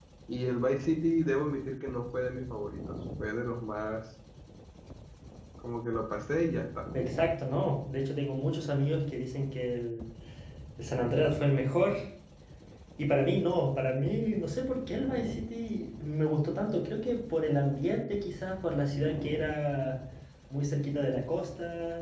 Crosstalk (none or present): none